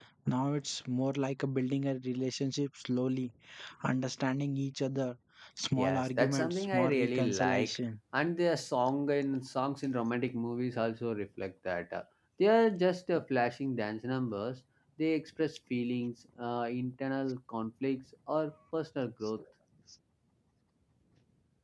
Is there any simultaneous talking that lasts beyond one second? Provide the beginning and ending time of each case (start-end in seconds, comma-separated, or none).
5.8-7.8